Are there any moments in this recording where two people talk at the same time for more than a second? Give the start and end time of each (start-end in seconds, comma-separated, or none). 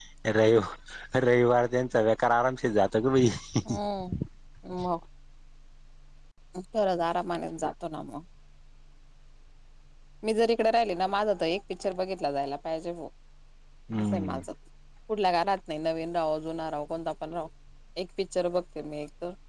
none